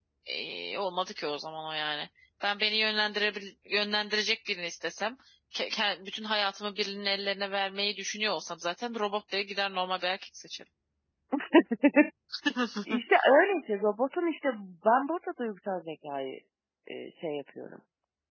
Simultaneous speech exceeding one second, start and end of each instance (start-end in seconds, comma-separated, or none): none